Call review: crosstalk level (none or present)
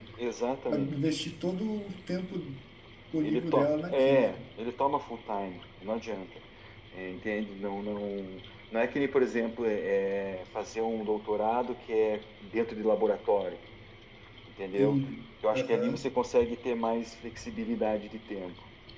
present